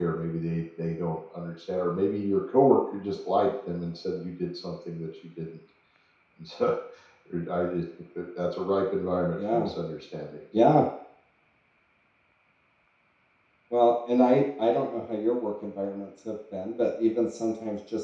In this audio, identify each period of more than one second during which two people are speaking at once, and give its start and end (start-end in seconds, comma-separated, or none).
none